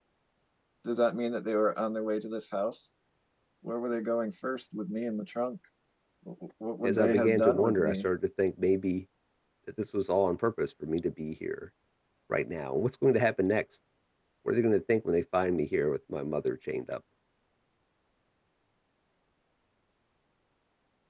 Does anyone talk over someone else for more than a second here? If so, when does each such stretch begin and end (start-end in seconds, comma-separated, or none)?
6.8-8.1